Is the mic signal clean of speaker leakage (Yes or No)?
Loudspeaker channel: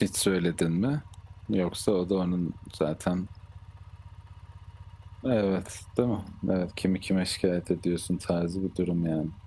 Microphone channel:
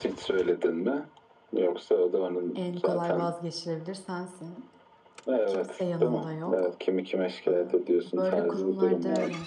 No